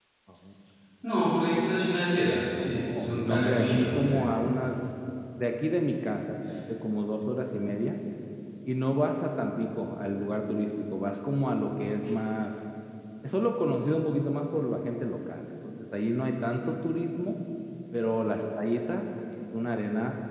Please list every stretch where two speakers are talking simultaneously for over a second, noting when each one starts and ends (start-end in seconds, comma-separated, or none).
2.6-4.2